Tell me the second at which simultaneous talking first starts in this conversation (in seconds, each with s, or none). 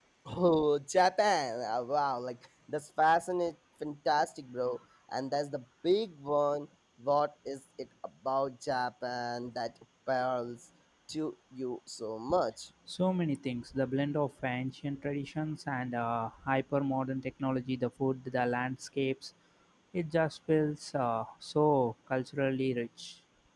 none